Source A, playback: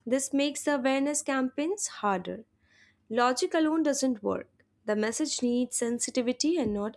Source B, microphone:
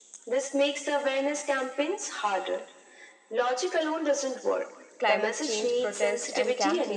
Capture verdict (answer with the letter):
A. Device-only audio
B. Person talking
B